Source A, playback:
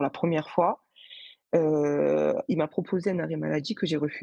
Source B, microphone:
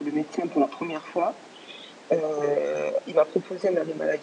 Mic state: echo only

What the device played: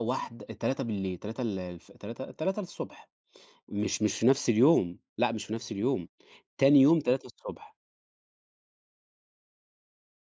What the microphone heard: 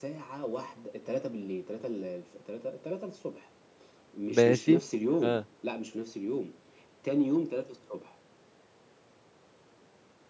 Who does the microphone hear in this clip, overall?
both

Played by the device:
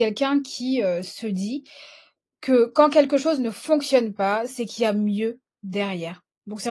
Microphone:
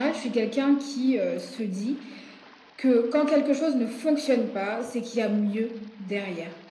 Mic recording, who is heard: echo only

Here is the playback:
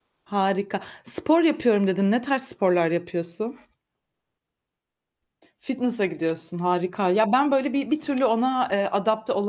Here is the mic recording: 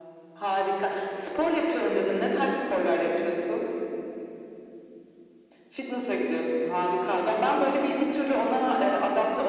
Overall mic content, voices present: echo only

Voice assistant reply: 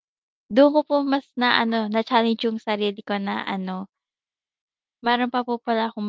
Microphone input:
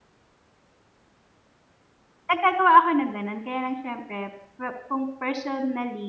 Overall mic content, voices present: user only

